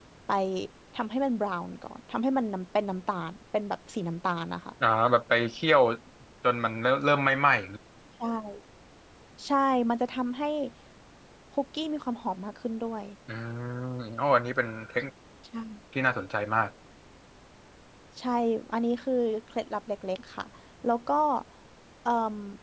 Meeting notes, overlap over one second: none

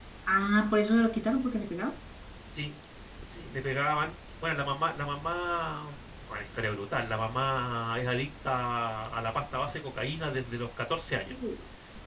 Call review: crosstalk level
none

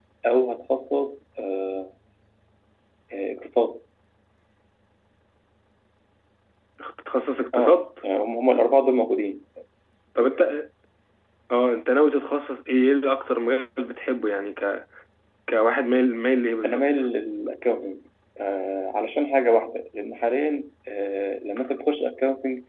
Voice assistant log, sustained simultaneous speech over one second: none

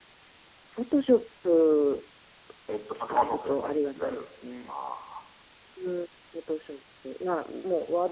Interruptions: present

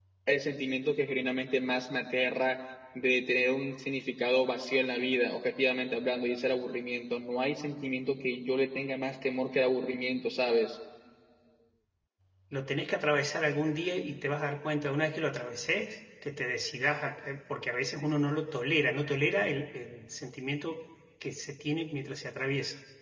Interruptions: none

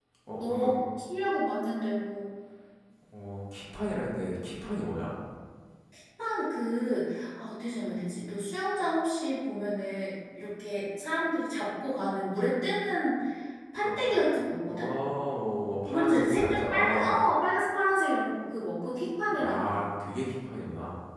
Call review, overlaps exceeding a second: present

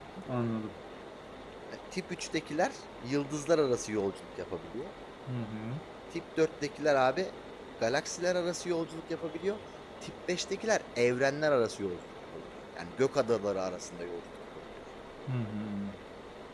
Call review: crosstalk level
none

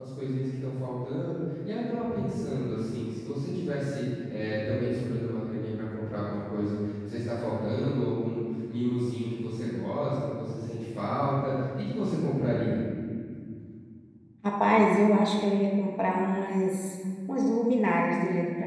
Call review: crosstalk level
none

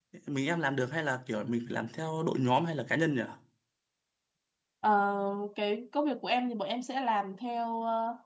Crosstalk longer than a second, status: none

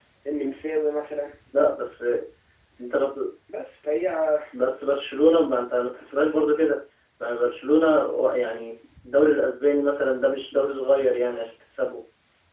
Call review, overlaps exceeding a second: none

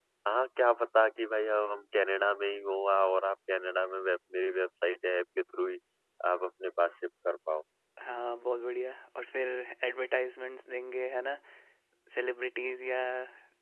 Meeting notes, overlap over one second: none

